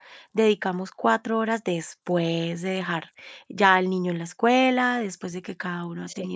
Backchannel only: Yes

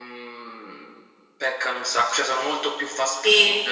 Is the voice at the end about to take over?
Yes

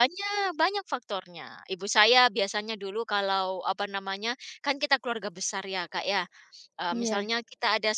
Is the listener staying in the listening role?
Yes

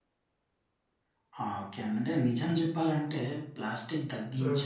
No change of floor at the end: Yes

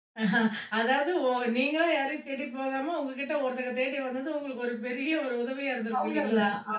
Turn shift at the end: Yes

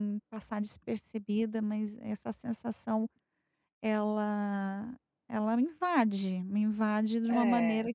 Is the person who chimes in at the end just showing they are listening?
Yes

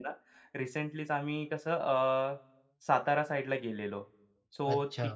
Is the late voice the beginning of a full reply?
No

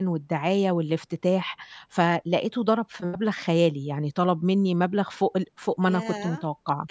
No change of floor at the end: No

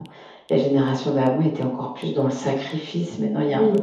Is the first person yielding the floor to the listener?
Yes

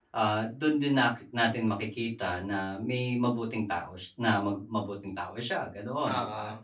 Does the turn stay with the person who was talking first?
Yes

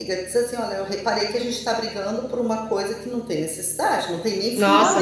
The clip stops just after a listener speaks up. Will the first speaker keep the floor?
No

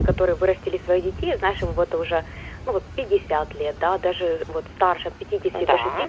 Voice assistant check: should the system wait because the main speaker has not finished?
Yes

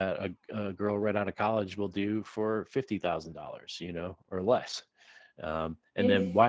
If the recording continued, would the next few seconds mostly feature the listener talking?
No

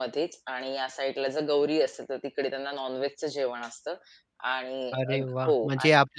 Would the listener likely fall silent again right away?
No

